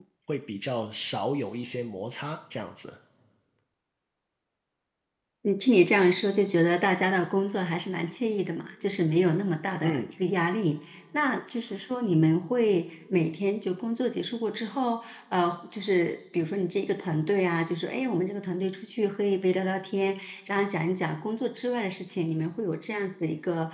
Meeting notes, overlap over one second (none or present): none